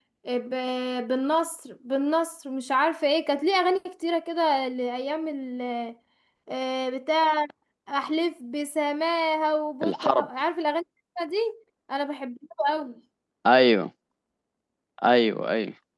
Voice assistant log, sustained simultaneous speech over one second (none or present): none